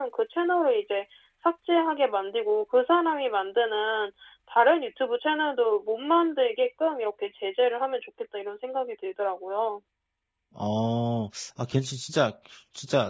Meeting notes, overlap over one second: none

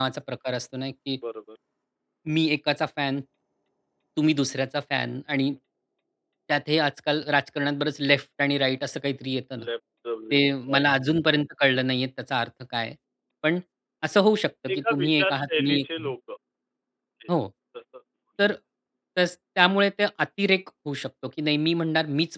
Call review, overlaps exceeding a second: present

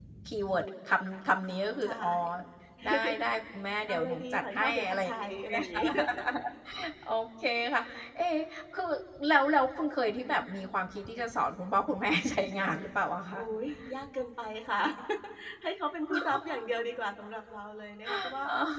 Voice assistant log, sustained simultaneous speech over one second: present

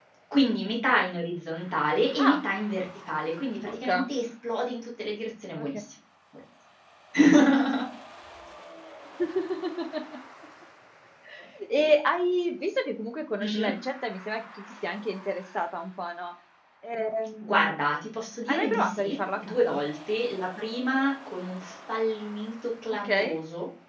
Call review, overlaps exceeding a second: present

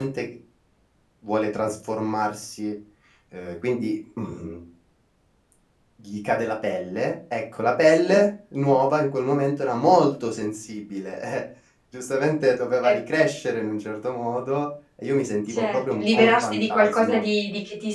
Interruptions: present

